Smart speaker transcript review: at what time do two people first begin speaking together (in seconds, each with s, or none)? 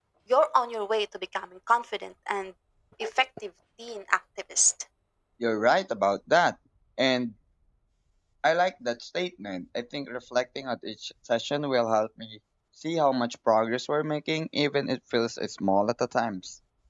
none